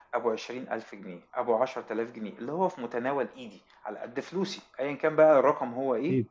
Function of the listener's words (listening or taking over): listening